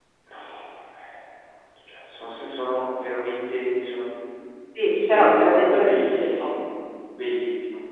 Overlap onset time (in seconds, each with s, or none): 4.8 s